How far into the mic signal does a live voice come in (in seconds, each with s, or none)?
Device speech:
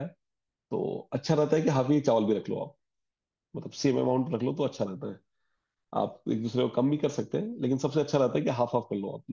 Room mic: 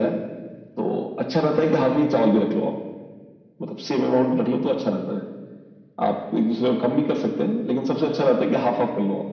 none